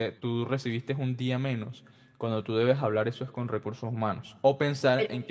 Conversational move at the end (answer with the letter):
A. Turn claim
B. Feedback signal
B